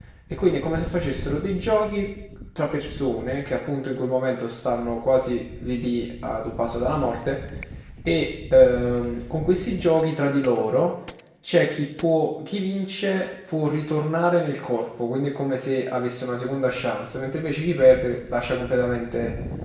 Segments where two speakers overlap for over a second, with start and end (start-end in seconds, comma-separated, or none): none